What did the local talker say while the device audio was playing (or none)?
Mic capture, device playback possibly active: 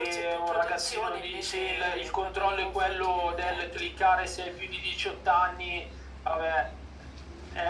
none